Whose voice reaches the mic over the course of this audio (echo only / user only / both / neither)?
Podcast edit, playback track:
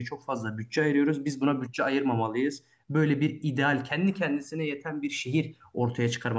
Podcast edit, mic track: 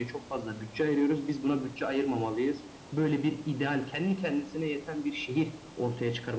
echo only